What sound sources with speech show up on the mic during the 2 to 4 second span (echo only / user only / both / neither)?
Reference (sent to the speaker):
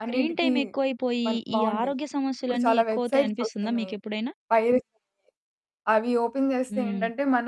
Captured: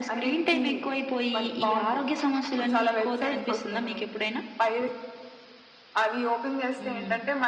echo only